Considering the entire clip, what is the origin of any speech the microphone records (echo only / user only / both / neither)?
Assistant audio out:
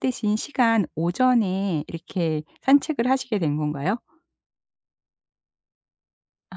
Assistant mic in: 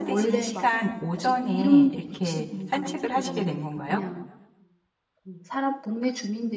both